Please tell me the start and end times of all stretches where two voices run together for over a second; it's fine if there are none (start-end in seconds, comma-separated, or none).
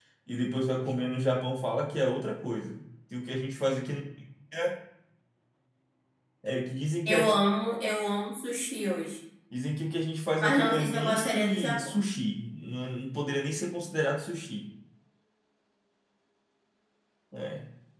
10.4-12.0